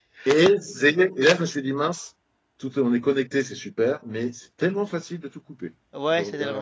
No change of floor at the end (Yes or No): No